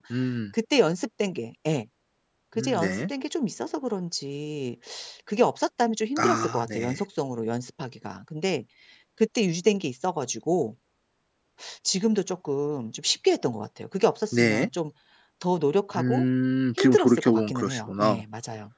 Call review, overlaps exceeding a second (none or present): present